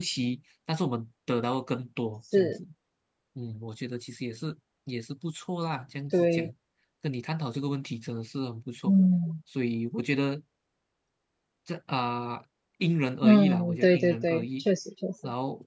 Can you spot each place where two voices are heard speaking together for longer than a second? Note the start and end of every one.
13.2-14.6

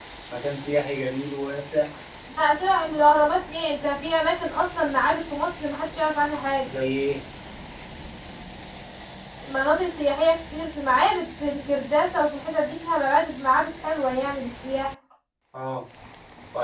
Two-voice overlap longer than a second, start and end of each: none

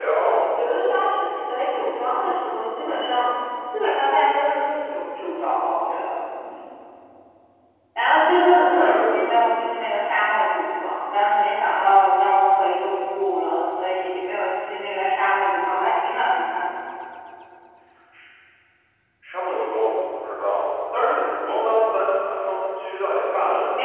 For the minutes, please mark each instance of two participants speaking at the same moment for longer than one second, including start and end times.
none

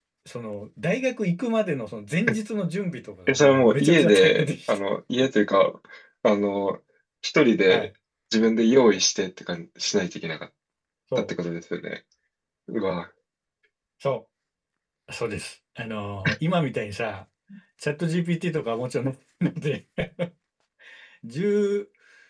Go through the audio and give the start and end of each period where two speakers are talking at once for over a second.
3.3-4.8

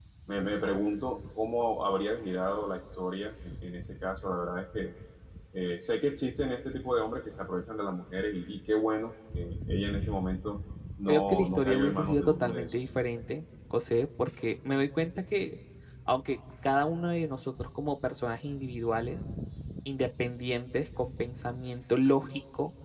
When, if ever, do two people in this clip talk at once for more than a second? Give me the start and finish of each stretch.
11.1-12.7

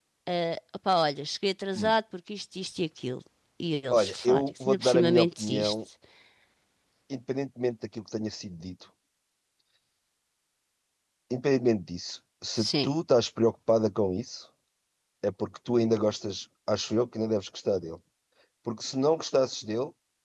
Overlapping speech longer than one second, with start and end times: 3.9-5.8

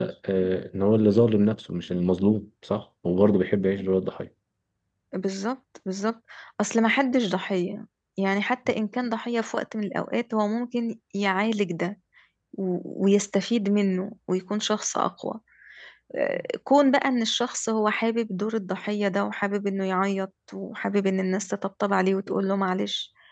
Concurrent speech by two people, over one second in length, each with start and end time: none

